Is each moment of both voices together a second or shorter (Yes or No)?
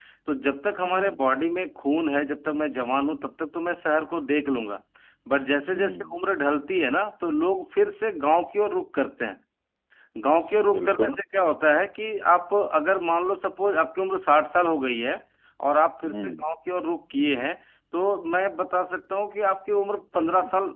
Yes